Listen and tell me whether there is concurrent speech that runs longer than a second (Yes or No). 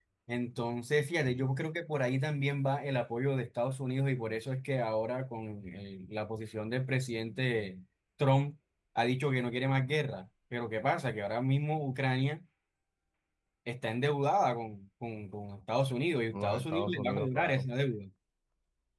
Yes